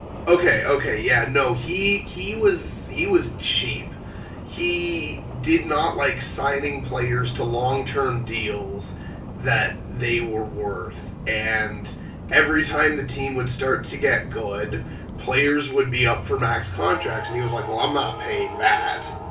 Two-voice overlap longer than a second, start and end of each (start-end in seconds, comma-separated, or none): none